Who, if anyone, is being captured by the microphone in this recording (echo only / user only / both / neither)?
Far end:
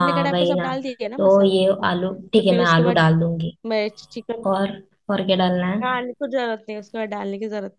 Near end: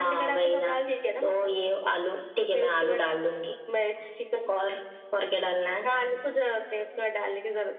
echo only